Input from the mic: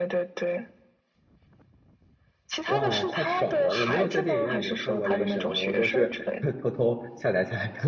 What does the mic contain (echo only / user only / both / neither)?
both